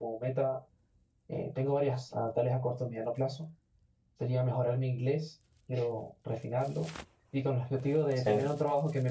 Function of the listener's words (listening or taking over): listening